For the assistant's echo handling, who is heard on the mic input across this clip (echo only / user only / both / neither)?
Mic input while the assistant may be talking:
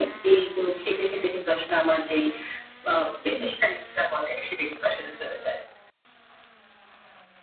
echo only